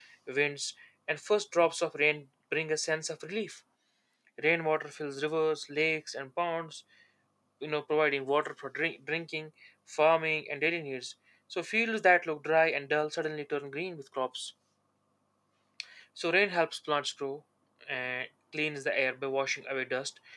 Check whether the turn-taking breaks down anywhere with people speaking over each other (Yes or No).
No